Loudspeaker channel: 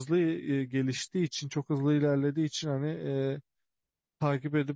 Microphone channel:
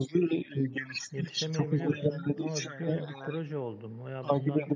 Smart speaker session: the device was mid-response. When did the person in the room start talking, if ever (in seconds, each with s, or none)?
1.1 s